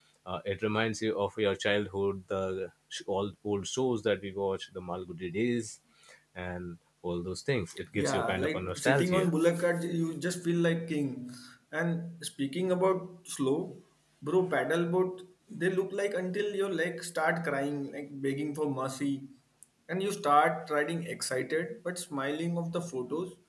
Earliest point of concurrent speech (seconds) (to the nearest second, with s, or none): 8 s